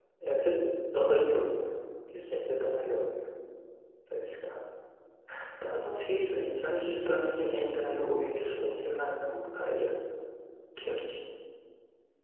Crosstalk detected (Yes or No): No